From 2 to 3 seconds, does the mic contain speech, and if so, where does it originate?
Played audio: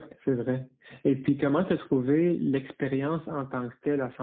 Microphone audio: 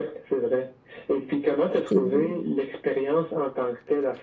both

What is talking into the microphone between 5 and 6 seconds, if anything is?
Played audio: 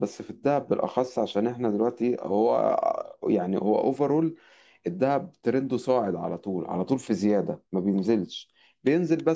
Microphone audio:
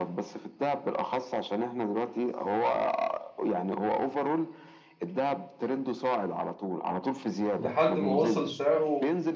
echo only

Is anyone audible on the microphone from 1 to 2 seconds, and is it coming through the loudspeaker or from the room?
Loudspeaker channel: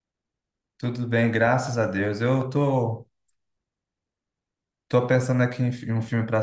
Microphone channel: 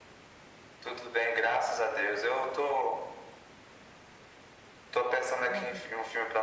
echo only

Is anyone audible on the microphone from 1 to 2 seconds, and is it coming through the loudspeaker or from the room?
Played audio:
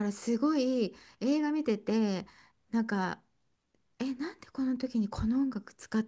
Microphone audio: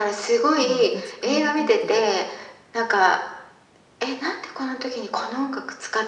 both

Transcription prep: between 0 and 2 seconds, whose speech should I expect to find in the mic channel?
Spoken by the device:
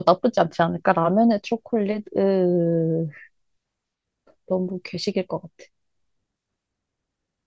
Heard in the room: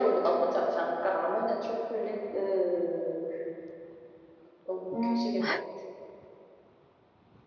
echo only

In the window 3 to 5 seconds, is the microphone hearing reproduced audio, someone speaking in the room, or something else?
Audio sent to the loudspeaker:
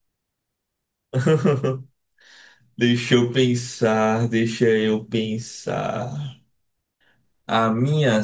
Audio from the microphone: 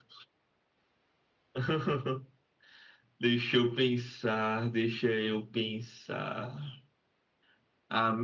echo only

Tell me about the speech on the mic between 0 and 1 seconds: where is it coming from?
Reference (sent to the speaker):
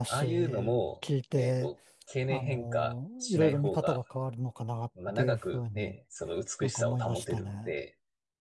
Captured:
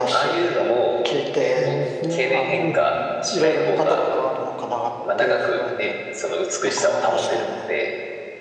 echo only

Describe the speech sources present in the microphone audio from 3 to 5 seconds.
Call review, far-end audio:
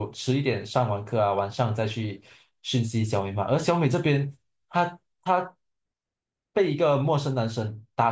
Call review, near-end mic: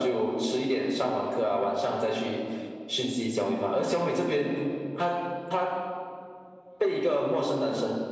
echo only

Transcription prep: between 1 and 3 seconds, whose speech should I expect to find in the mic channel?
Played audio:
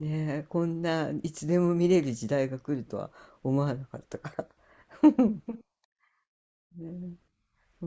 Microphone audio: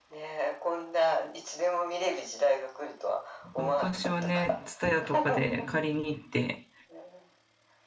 echo only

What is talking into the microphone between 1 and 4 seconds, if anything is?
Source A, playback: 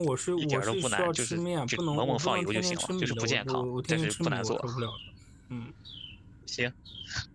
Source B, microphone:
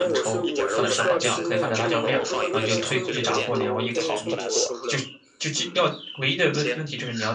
both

